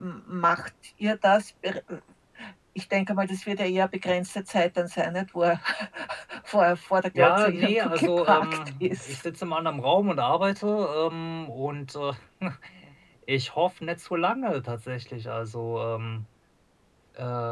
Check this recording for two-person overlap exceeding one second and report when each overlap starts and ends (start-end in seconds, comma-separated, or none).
7.2-9.2